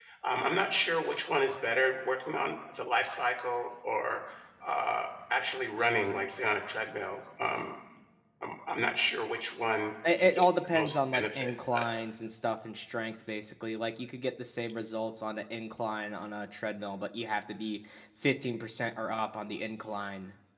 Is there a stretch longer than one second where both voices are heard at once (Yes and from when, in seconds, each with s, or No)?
Yes, from 10.0 s